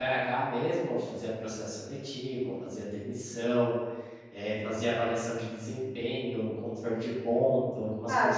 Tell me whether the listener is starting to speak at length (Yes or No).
Yes